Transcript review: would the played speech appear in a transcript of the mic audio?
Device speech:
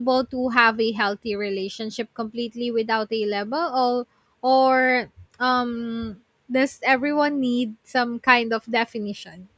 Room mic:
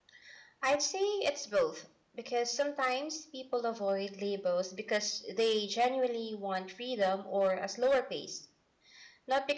No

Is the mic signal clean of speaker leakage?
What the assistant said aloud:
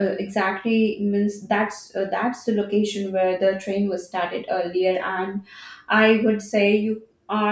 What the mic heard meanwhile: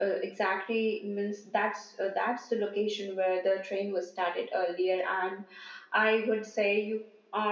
No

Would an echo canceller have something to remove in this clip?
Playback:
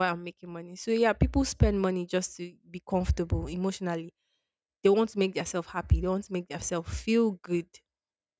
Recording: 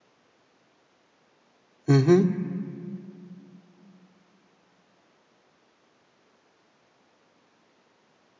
No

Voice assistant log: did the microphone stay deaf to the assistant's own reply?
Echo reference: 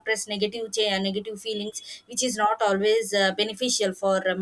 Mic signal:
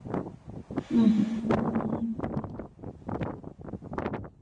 Yes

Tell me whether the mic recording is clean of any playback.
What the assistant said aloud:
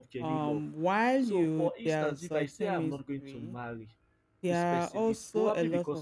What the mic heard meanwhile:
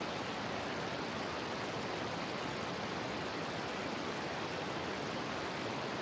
Yes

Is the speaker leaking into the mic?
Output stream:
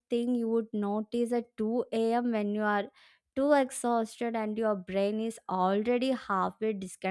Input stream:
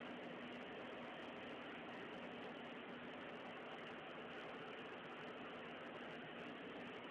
No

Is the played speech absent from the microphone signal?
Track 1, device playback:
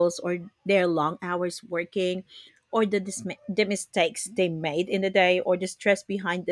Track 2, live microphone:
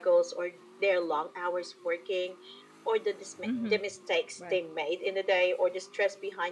No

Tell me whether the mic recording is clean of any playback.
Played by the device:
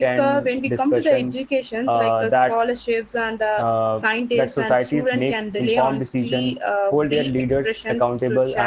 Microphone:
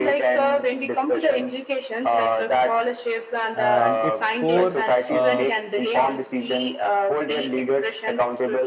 No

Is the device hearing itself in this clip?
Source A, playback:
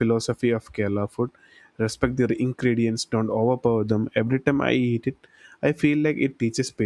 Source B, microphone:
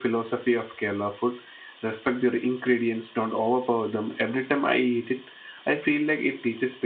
Yes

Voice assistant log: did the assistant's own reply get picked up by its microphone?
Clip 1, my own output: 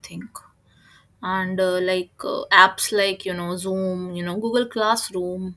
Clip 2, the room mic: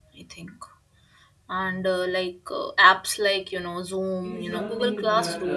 Yes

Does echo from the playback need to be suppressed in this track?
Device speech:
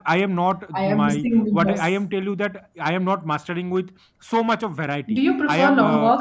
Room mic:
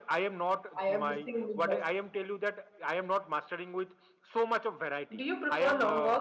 Yes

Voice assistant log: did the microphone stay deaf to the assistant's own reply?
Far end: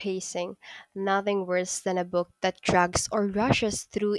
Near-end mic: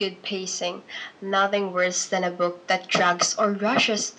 No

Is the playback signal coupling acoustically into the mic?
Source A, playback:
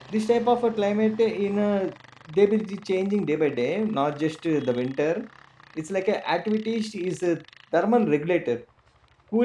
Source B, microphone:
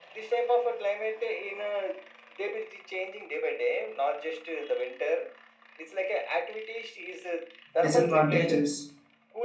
Yes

